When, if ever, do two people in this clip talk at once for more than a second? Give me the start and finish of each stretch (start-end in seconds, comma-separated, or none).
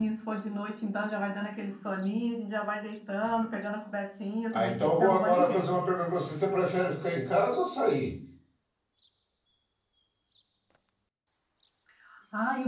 4.5-5.9